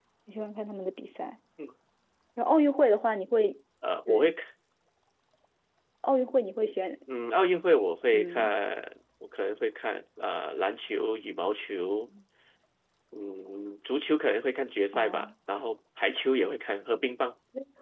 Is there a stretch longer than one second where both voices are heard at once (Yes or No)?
No